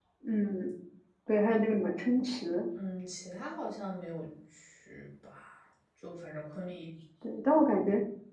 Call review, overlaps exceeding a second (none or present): none